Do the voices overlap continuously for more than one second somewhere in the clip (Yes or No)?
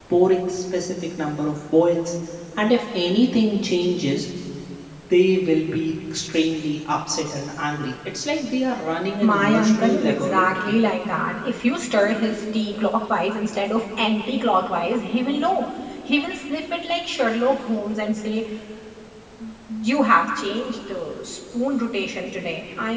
Yes